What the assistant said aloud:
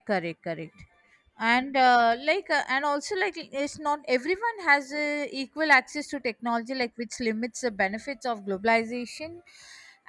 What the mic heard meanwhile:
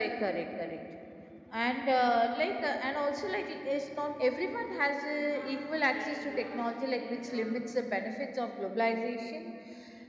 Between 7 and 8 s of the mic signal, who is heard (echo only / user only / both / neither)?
both